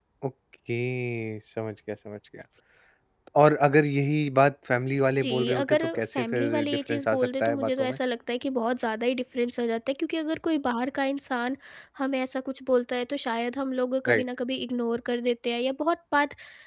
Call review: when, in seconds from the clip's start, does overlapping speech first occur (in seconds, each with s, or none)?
5.1 s